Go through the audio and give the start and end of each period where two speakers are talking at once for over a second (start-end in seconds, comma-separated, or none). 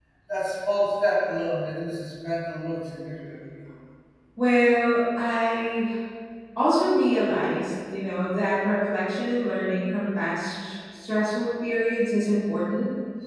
none